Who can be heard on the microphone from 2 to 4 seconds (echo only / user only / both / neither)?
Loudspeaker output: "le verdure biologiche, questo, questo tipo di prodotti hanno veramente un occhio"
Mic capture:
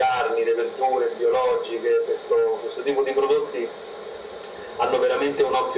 echo only